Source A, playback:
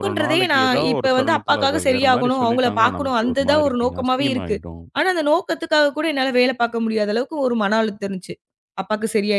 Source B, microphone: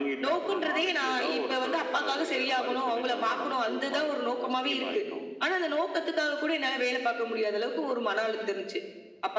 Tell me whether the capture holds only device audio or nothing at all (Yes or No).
Yes